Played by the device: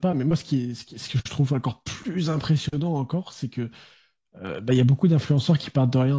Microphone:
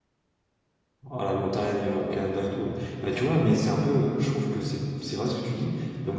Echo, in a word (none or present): none